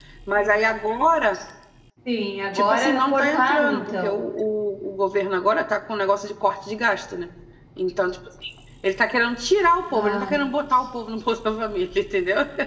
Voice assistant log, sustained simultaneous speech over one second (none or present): present